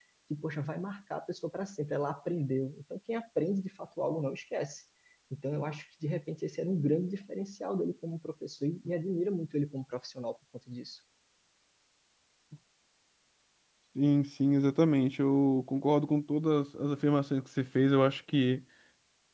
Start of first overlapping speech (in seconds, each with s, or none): none